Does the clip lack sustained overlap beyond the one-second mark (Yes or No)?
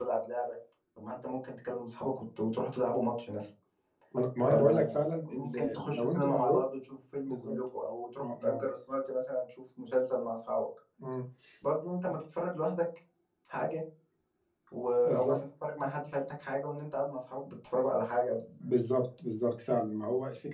No